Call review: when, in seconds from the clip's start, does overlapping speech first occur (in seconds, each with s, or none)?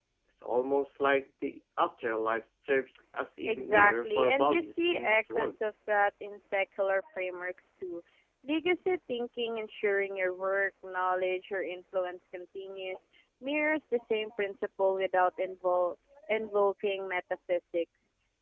3.5 s